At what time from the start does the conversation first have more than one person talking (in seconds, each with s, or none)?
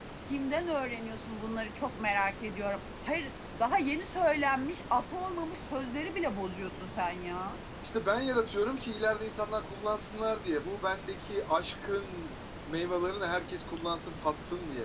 none